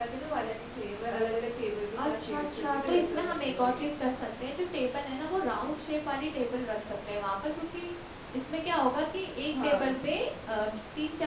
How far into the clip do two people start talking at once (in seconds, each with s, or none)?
2.0 s